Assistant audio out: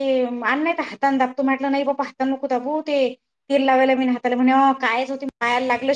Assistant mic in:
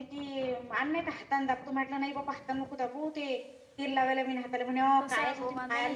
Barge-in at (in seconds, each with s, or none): 5.0 s